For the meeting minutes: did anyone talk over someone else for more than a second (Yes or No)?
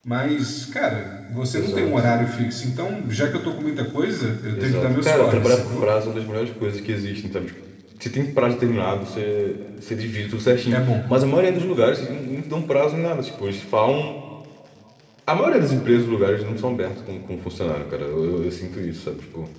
Yes